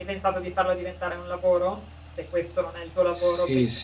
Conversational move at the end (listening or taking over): taking over